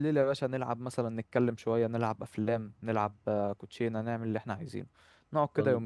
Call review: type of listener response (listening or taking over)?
taking over